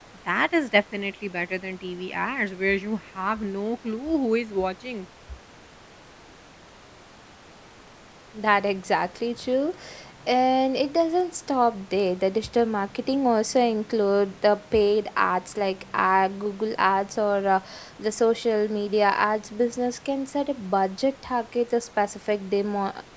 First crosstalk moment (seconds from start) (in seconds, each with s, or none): none